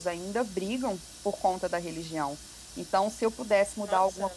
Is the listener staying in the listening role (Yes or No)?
Yes